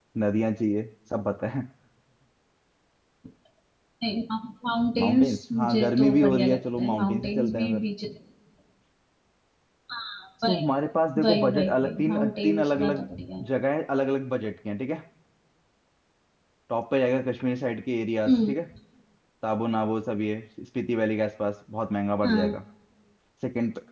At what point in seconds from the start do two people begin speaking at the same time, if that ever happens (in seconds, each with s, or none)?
5.0 s